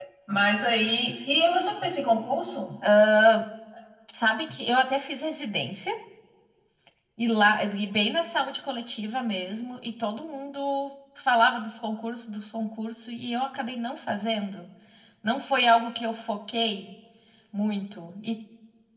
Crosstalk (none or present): none